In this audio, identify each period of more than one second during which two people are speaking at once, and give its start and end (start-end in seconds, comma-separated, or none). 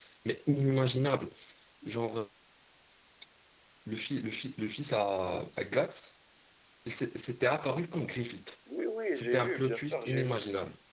9.1-10.4